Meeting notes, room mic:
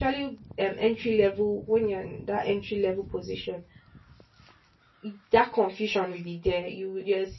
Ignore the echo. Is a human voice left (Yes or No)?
Yes